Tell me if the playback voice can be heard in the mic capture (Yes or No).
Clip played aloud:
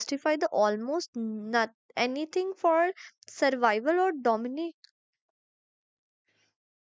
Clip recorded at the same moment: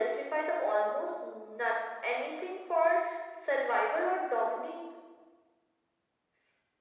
Yes